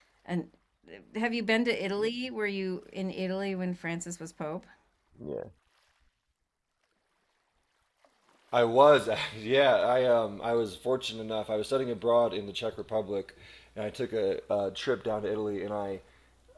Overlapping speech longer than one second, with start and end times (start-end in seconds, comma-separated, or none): none